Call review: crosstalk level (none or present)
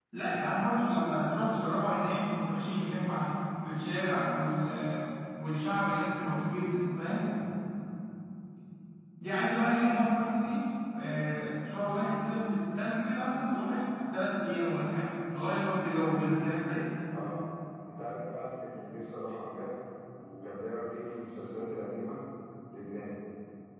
none